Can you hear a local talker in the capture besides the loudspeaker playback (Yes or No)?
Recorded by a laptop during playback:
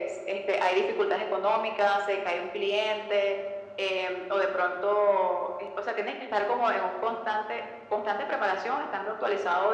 No